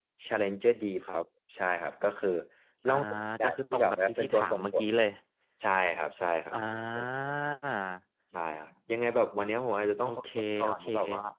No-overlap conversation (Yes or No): No